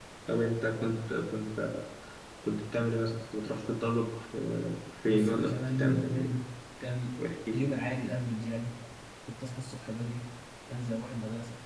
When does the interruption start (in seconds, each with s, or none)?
5.0 s